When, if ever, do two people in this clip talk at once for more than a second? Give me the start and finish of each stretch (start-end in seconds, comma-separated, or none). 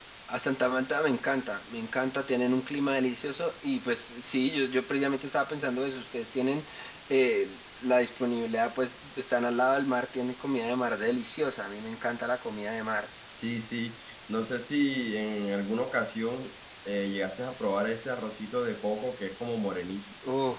none